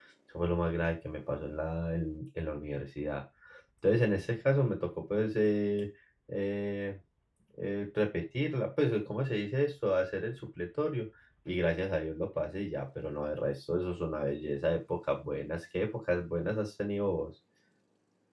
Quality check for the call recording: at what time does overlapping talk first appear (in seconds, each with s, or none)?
none